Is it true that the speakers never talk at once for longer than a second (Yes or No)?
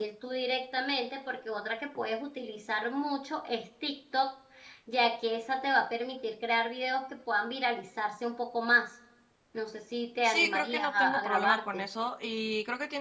No